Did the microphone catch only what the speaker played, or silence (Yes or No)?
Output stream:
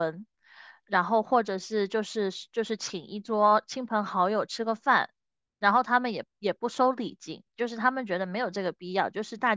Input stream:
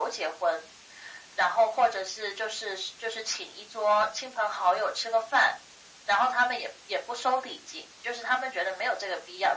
Yes